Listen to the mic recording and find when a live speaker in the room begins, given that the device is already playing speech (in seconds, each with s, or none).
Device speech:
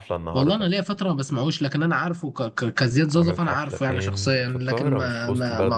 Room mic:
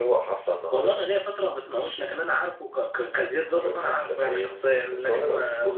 none